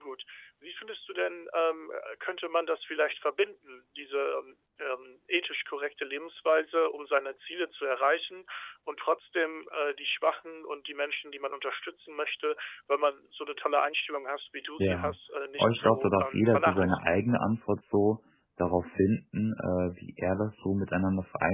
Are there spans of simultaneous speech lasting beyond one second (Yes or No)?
Yes